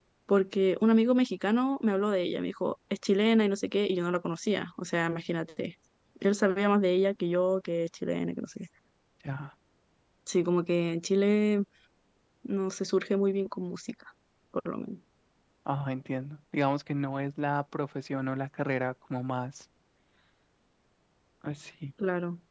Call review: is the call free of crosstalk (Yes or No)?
Yes